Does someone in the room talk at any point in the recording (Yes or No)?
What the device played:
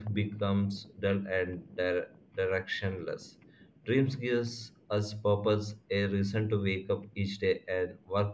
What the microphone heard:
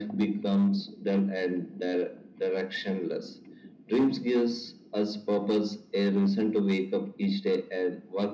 No